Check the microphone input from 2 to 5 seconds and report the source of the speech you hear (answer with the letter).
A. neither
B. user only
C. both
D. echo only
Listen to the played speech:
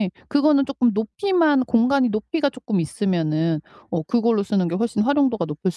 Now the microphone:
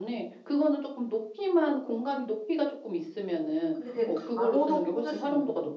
C